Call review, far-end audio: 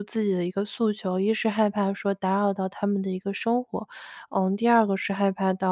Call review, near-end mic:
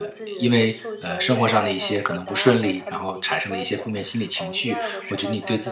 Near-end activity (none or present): present